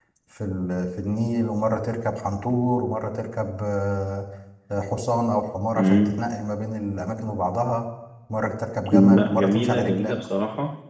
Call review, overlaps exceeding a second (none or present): present